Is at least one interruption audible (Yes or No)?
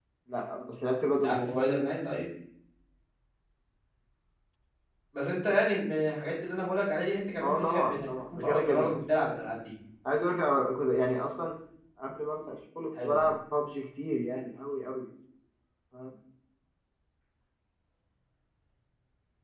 Yes